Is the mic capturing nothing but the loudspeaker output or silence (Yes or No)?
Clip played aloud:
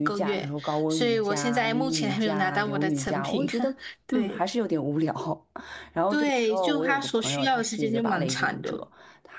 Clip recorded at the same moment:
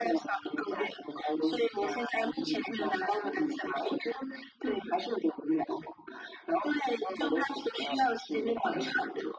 Yes